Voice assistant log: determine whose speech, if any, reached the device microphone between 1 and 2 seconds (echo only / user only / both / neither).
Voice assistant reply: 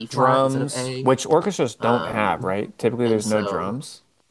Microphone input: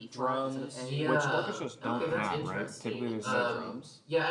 both